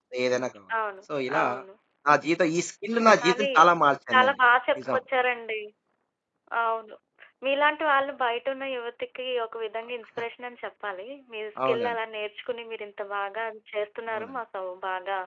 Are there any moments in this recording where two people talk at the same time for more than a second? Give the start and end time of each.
none

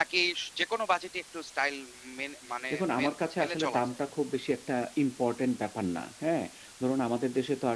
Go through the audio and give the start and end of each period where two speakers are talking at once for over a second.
2.7-3.9

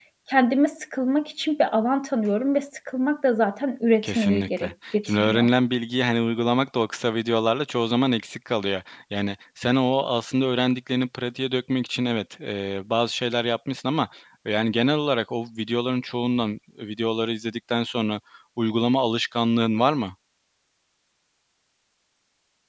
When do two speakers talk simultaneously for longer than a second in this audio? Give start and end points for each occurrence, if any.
4.0-5.5

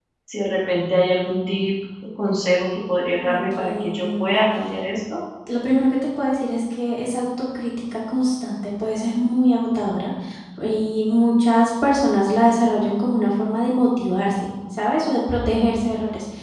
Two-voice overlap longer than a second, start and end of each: 3.2-4.5

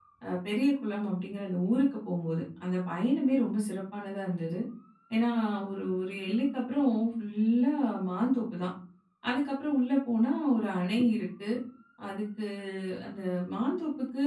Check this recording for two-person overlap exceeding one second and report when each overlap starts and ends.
none

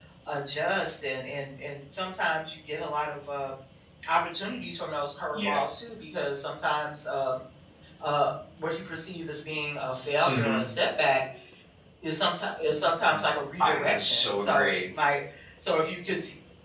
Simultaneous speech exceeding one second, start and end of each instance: 13.6-14.8

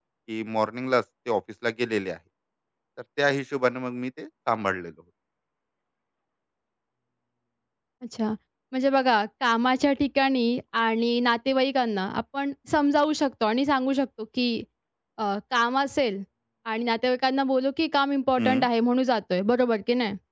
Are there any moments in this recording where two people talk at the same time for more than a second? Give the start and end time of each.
none

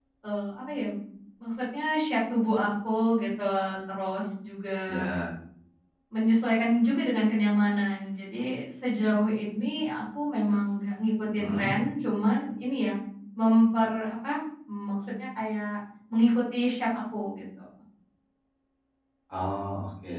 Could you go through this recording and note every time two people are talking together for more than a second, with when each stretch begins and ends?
none

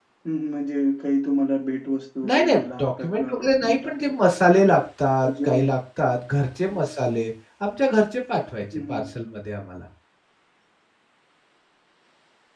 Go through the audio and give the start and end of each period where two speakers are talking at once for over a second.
2.3-3.9

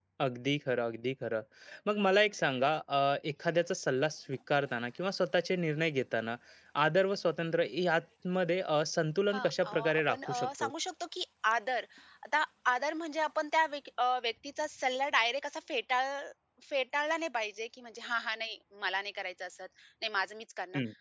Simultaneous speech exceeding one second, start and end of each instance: 9.3-10.7

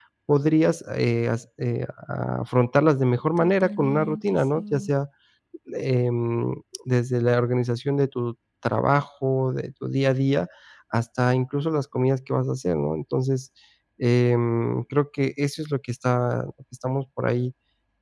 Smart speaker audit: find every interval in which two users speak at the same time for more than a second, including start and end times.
3.4-4.9

